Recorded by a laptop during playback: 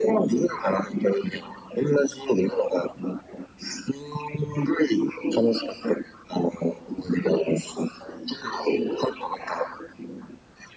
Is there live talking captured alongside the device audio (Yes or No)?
No